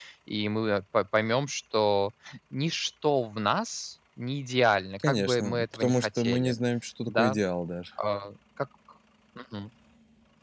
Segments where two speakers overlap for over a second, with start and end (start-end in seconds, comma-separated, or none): 5.0-6.6